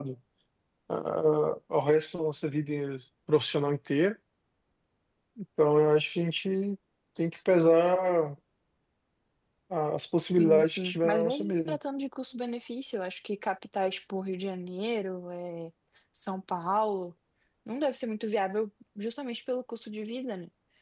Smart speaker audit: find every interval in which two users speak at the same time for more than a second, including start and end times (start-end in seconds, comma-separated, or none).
10.2-11.8